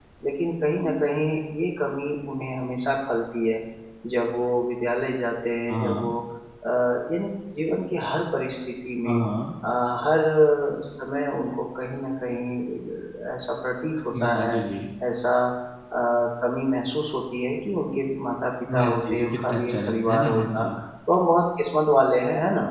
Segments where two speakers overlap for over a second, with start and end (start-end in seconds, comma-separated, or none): 18.7-20.8